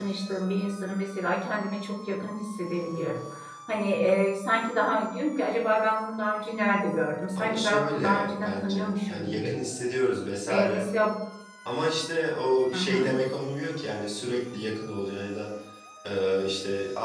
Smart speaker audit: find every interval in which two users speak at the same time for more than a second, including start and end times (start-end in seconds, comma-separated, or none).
7.4-9.5